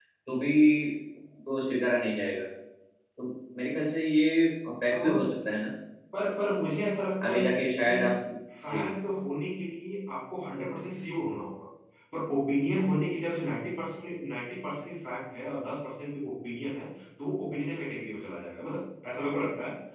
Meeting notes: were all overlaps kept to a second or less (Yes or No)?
Yes